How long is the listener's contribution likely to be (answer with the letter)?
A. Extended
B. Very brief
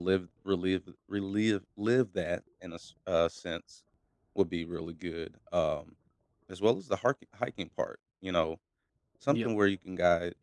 B